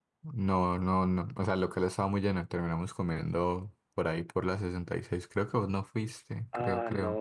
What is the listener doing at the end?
taking over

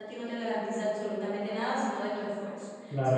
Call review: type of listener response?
taking over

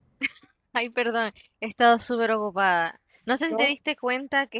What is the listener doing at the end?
listening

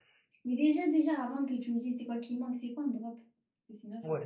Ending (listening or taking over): taking over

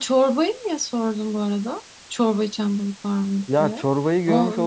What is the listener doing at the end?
taking over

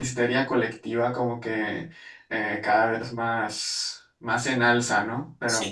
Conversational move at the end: listening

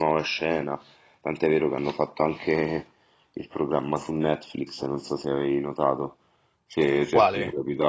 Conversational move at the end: listening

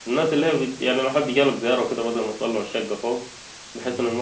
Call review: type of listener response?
listening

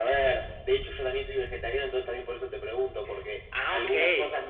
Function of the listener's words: listening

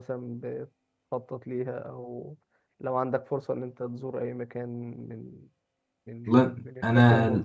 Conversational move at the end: taking over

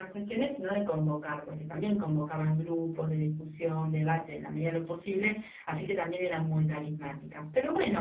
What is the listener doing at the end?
listening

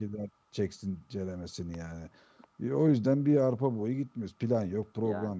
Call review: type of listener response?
listening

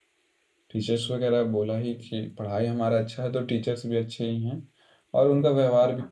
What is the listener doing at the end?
listening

